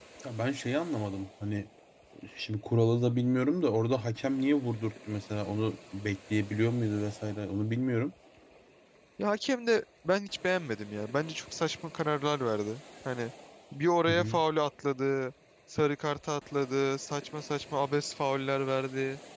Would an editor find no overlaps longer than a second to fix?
Yes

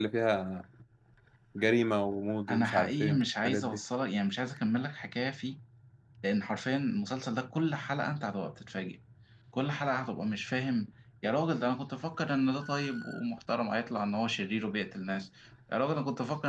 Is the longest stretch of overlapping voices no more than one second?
No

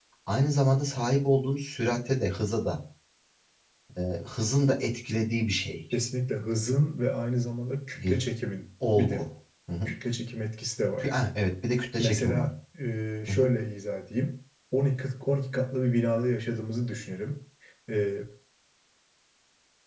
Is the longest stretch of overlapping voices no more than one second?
Yes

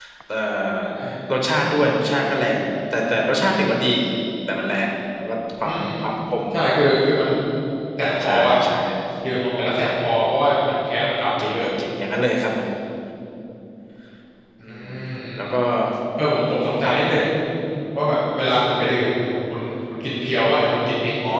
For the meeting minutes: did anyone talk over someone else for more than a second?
No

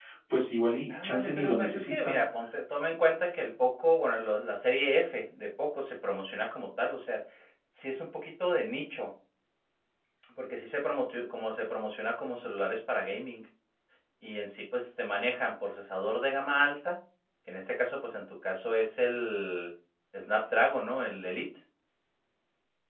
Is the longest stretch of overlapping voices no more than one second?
No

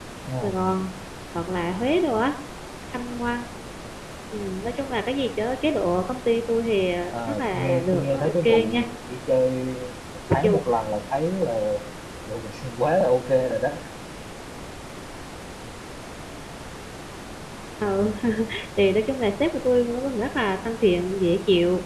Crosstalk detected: Yes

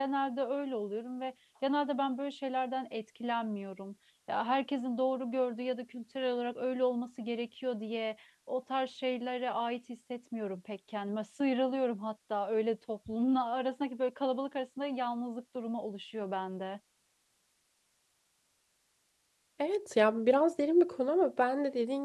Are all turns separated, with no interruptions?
Yes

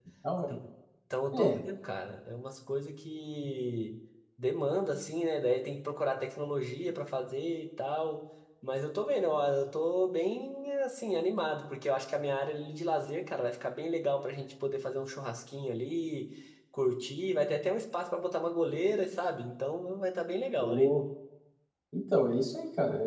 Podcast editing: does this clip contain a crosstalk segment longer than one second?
No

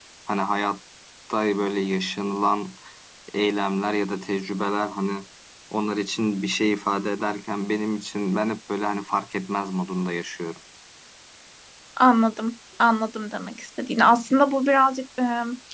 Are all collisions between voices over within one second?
Yes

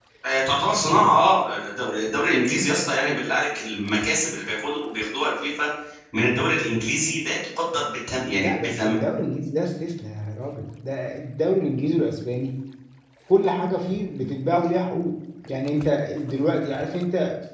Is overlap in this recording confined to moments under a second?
Yes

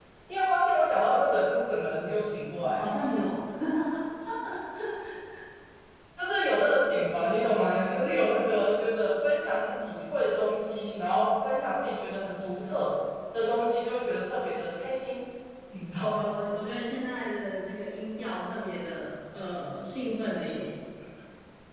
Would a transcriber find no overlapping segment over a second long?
Yes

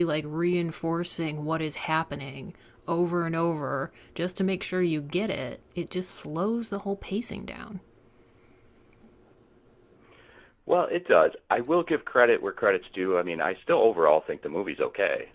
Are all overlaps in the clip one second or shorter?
Yes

